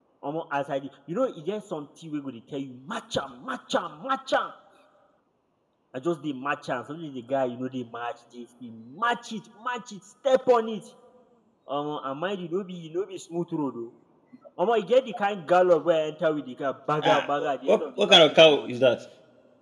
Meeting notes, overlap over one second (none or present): present